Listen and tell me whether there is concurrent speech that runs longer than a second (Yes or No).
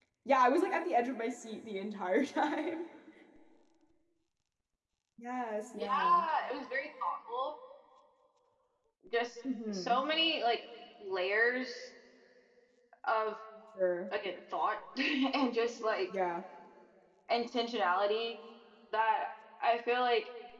No